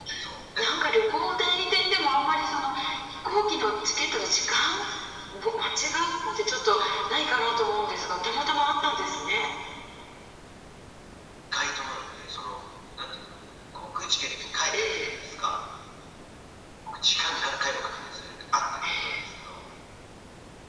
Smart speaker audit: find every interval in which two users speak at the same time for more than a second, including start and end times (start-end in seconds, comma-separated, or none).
none